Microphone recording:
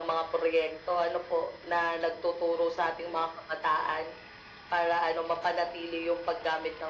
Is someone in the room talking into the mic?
No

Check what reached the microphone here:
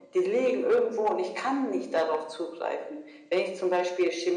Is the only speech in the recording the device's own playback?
Yes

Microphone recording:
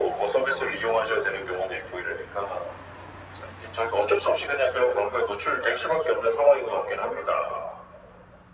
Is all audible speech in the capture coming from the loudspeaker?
Yes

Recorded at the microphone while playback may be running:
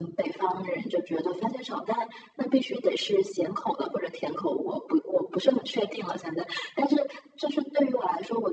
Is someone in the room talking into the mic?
No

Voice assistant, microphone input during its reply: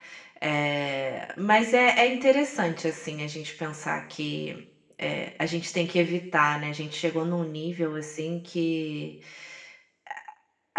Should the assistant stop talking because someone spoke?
Yes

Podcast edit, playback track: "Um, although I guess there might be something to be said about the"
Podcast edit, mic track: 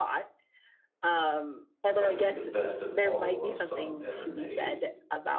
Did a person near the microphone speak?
Yes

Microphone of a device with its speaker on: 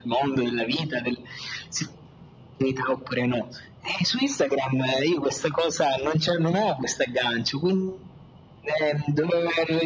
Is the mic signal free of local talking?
Yes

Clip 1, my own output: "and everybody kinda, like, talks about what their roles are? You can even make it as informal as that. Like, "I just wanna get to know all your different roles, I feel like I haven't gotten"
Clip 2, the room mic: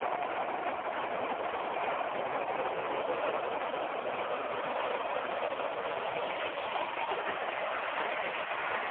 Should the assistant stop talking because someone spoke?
No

